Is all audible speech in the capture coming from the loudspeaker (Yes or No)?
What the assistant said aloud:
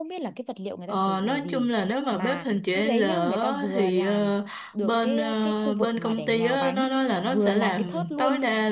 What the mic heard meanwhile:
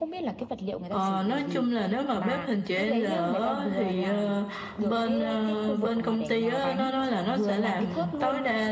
Yes